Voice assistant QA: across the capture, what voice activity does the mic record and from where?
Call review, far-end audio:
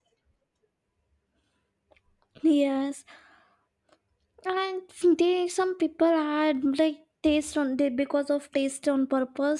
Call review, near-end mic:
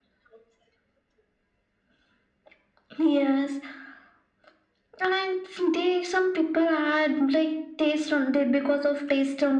echo only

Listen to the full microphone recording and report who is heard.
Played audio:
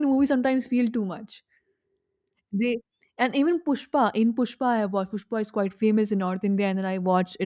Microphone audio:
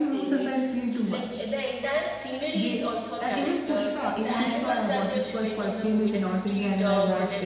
both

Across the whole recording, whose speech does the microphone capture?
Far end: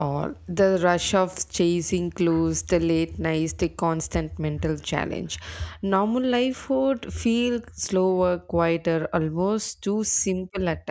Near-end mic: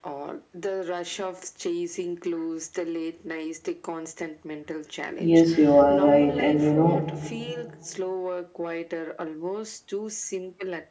both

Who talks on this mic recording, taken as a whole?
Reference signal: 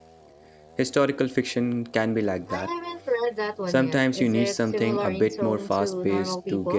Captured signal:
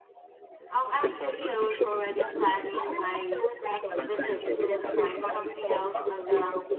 both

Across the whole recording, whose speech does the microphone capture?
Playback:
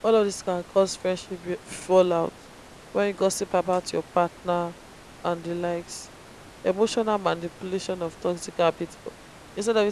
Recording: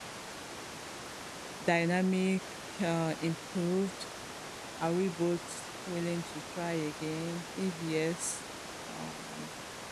user only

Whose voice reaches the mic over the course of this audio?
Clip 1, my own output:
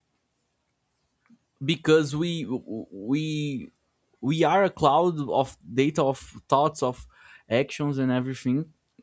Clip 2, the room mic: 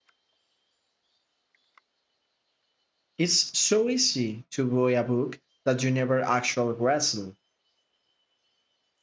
user only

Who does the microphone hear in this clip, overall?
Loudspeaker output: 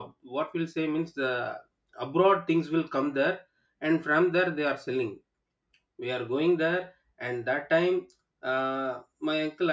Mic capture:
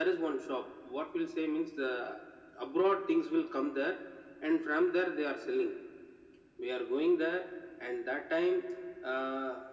echo only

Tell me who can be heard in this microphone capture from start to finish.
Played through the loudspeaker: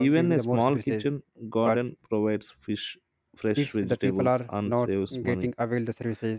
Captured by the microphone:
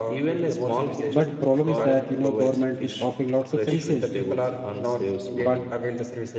both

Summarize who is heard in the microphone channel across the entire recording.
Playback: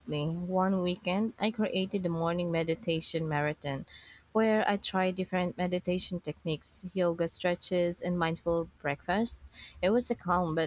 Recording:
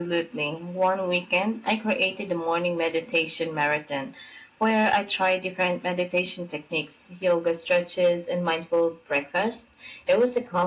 echo only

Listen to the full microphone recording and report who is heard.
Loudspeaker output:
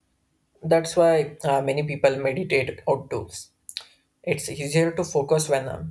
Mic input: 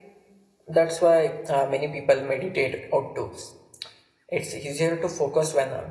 echo only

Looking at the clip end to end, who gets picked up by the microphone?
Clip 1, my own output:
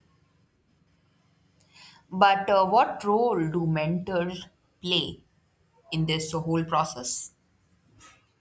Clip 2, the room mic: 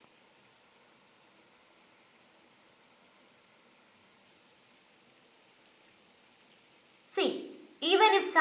user only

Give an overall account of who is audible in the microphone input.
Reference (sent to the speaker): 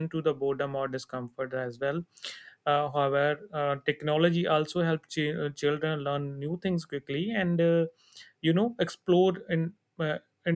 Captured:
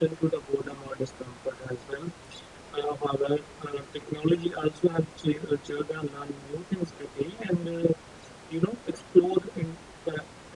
echo only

